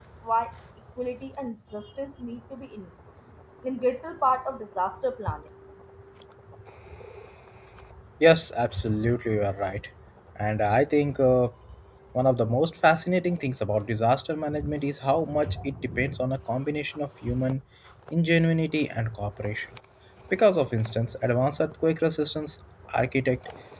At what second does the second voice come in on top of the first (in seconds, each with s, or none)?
none